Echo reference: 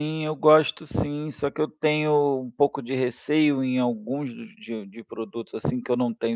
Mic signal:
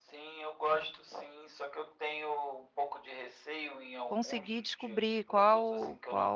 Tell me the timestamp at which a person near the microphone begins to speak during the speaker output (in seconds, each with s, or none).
4.0 s